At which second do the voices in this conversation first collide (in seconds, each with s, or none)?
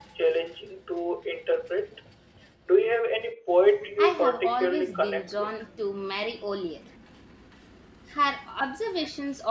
4.0 s